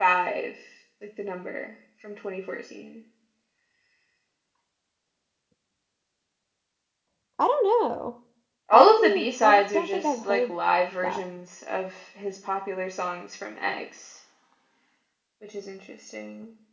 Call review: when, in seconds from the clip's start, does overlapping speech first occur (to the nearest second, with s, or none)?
9 s